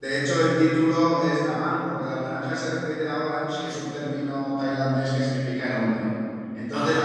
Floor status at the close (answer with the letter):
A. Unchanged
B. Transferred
A